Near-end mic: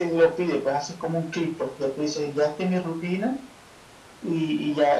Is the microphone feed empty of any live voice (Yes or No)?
Yes